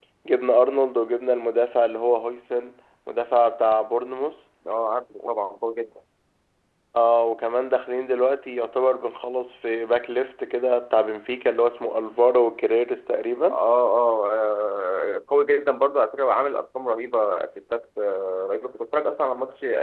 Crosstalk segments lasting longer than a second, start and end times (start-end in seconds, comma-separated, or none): none